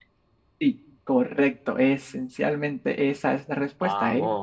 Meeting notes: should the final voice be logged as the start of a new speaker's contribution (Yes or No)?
No